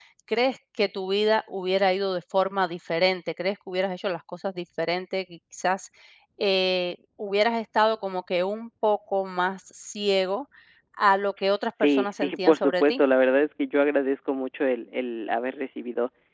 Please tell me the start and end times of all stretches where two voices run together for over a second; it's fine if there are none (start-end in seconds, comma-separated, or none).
11.8-13.0